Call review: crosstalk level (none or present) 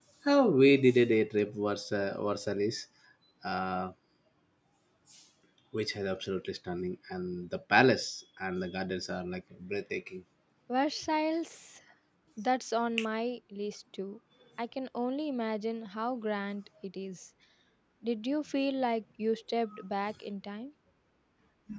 none